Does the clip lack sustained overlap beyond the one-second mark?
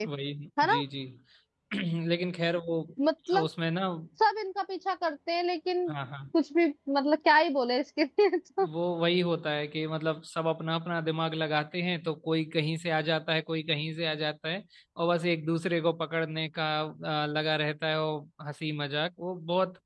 Yes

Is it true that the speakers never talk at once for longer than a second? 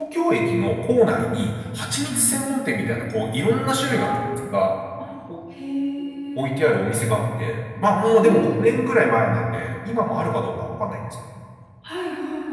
Yes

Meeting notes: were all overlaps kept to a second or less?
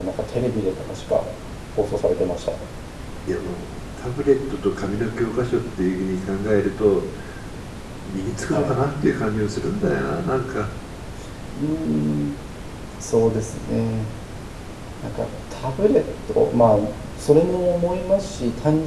Yes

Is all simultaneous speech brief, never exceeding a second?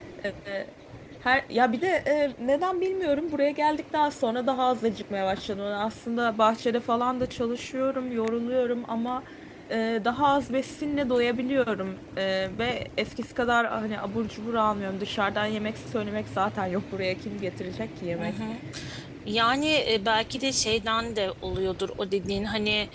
Yes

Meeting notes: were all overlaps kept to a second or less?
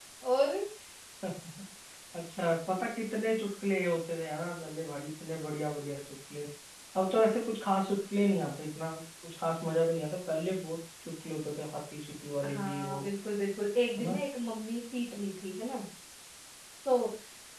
Yes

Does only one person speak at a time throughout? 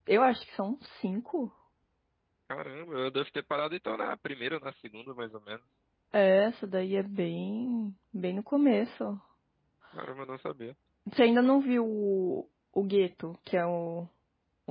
Yes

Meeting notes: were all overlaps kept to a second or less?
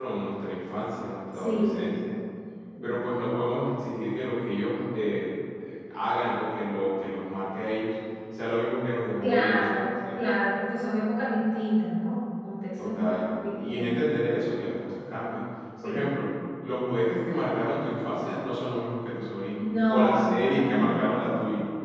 No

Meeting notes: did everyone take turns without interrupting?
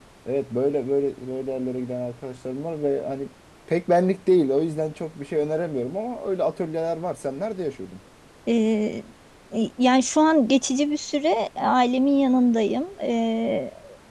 Yes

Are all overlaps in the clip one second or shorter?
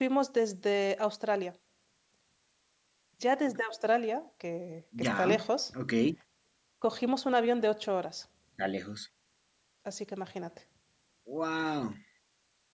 Yes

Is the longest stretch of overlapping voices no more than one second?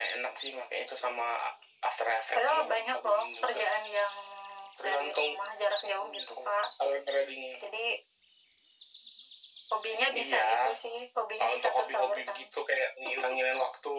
No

